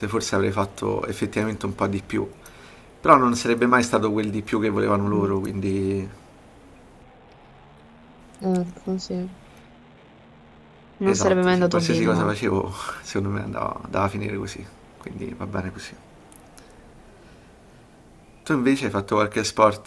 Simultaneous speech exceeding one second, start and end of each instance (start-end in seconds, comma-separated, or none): 11.1-12.3